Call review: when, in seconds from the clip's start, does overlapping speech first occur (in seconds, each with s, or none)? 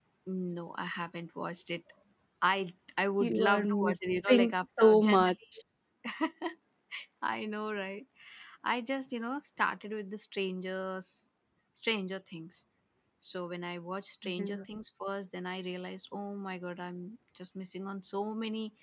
3.2 s